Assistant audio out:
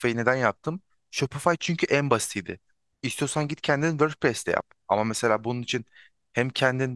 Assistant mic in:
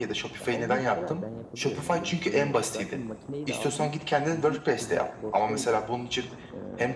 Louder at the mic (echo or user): echo